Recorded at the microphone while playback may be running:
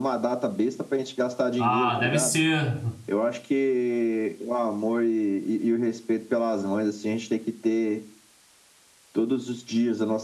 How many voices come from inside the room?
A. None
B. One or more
B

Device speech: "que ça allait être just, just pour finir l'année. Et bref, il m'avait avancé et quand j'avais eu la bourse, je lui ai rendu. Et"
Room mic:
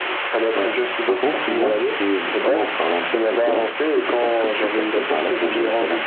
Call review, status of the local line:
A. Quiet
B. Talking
B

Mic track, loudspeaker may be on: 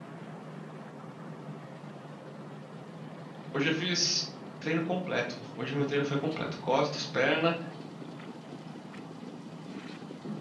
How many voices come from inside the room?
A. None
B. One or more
B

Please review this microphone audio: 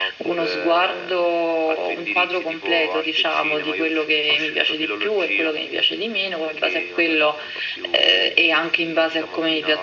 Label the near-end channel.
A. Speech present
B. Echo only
B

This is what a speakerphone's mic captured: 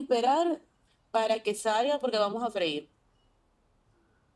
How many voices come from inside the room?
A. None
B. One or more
A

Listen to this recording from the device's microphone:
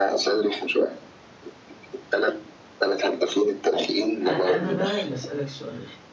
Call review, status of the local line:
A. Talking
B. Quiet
A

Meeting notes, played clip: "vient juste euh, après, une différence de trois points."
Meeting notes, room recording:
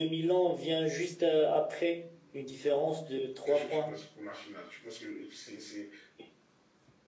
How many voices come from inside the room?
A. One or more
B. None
A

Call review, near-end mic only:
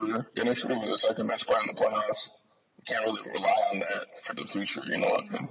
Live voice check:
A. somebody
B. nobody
B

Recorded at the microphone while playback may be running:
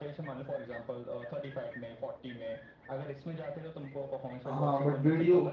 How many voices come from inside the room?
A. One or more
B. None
A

